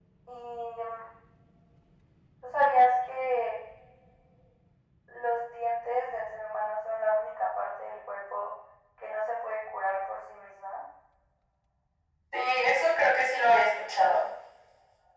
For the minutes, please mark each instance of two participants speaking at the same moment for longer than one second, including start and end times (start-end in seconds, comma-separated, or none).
none